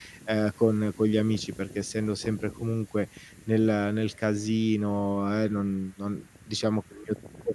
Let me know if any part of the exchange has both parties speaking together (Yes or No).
No